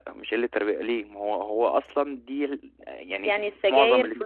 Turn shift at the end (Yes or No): Yes